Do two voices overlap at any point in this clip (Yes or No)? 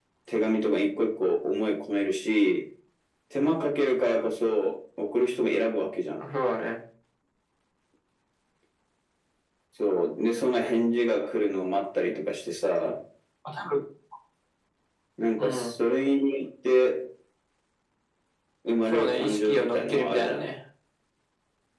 Yes